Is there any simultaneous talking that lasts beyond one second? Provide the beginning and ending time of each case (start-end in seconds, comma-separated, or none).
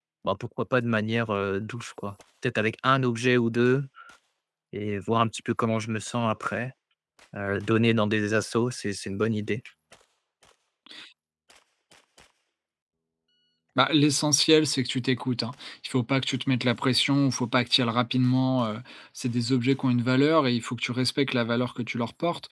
none